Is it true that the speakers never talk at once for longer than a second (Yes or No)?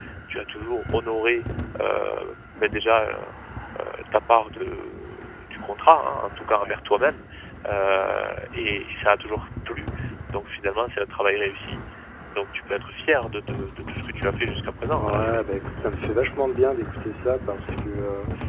Yes